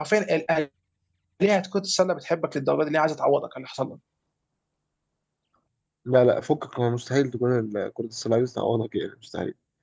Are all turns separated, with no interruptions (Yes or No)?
Yes